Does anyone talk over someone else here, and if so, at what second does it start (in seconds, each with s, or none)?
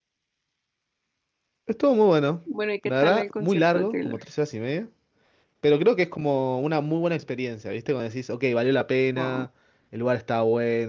2.9 s